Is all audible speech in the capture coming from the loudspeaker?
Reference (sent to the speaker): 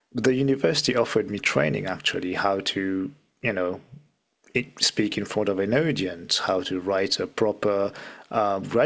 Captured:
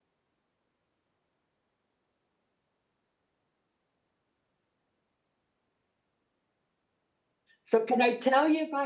No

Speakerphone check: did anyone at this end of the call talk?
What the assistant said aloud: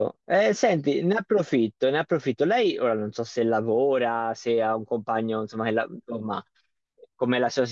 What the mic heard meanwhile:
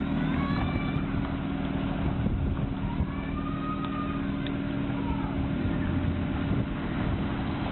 No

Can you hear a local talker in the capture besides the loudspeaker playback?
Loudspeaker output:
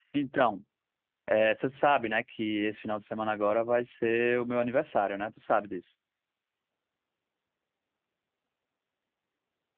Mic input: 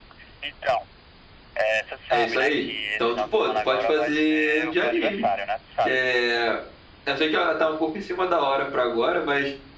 Yes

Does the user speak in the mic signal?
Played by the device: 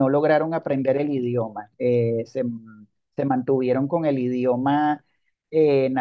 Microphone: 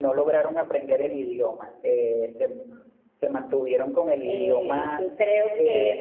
Yes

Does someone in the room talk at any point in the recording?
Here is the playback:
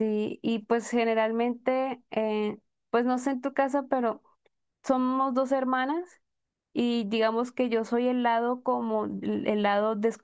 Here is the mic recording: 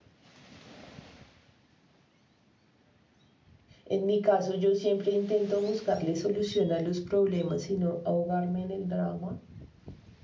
Yes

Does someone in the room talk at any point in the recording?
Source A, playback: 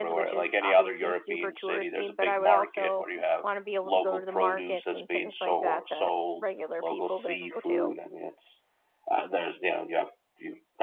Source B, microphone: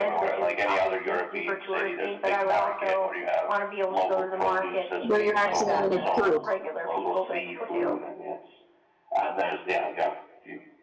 Yes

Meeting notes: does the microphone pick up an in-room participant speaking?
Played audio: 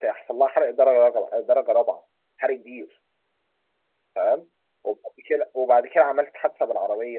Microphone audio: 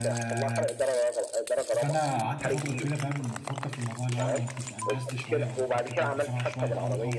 Yes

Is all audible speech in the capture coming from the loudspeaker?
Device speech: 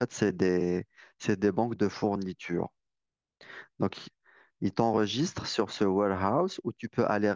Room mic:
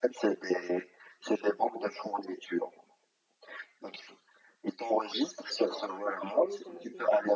No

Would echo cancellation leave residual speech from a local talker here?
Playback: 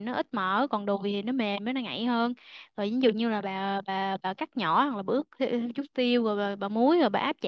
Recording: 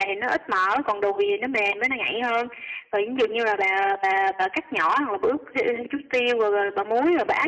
No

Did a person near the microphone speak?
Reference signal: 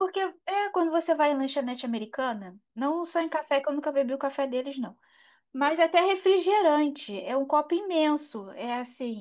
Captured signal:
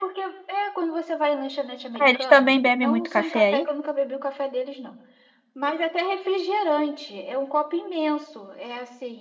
Yes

